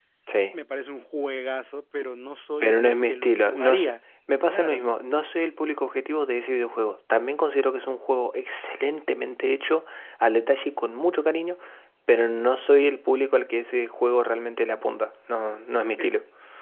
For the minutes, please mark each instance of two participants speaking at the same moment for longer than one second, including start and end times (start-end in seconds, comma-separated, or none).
2.6-3.9